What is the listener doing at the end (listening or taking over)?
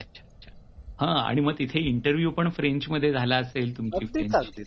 taking over